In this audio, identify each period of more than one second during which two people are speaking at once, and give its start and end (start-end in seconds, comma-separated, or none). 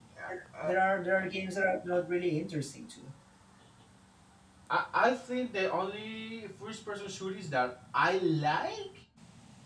none